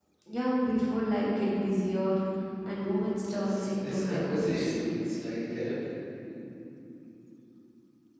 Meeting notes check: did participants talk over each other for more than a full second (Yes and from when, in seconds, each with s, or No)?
Yes, from 3.3 s